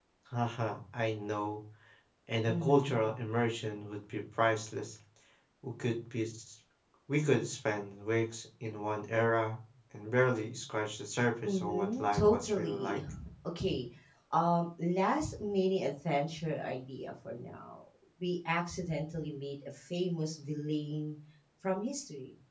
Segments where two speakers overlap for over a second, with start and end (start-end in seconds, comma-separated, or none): 11.4-13.0